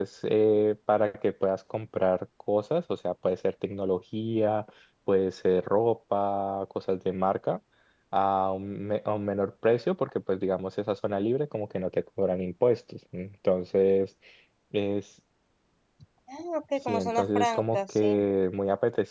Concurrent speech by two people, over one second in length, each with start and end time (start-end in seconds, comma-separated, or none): 16.9-18.1